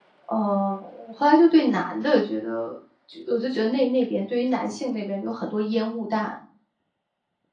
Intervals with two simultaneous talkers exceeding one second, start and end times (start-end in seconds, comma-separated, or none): none